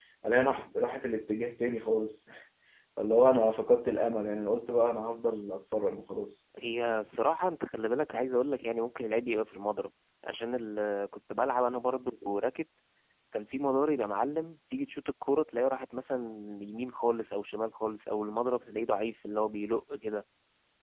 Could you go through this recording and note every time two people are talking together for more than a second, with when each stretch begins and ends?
none

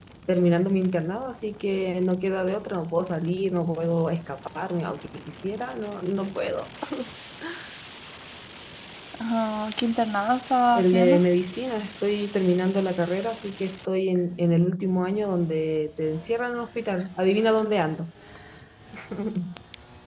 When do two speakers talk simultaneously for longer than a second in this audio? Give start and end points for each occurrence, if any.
none

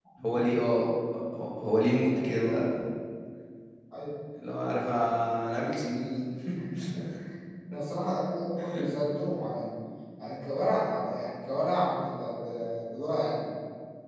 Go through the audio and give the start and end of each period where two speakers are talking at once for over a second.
none

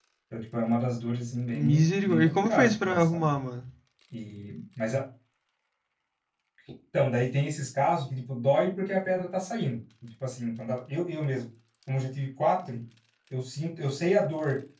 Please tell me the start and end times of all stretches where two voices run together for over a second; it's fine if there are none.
1.5-3.3

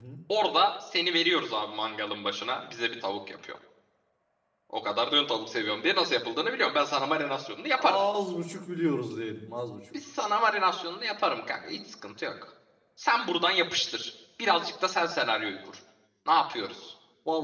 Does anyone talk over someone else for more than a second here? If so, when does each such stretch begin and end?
none

